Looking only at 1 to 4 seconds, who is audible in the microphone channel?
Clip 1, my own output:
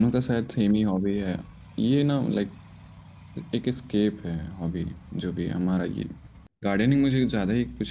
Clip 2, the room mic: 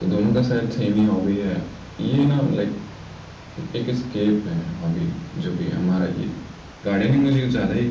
echo only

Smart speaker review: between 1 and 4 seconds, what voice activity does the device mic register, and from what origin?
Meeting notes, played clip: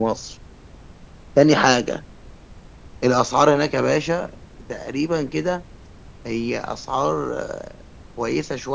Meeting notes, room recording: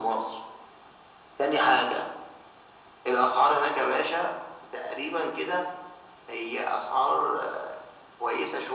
echo only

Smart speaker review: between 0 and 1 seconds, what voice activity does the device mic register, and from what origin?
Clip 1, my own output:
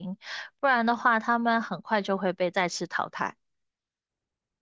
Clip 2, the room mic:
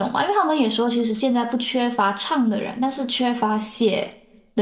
user only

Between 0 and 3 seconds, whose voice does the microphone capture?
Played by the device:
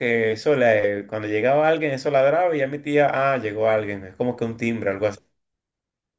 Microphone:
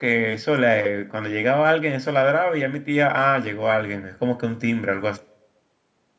echo only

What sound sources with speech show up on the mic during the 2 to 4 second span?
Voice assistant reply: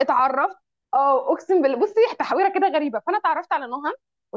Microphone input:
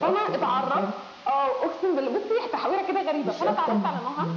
both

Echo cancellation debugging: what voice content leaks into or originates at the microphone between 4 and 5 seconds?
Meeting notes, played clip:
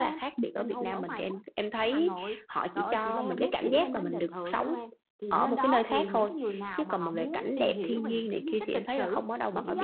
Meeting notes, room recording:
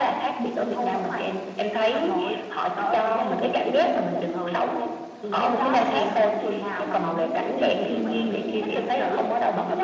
echo only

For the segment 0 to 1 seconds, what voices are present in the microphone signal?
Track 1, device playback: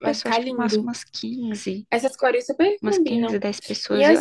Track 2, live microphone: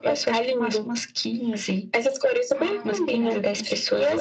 echo only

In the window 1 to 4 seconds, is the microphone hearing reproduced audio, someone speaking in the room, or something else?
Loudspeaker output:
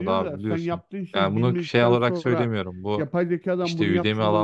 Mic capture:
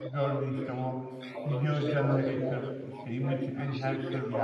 both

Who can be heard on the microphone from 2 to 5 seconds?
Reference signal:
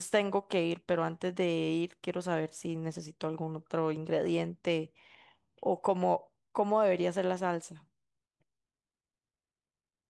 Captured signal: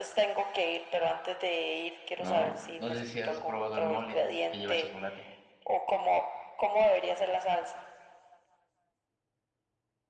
both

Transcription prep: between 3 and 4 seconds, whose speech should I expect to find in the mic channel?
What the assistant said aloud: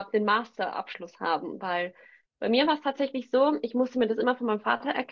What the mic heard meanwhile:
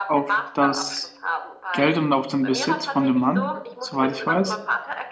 both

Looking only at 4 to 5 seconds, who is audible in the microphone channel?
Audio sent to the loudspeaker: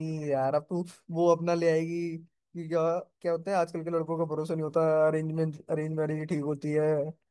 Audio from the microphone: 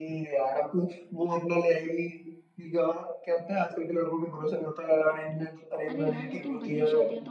echo only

